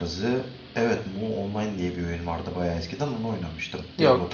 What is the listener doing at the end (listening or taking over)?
taking over